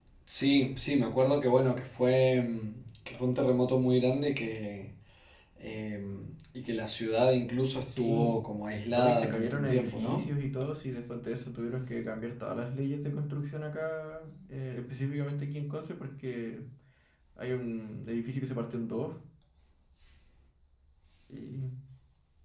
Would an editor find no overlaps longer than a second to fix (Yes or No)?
No